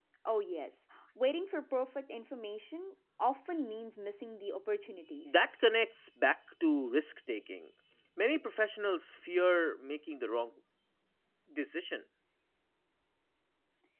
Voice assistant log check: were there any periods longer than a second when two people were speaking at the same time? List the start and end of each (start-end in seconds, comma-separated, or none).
none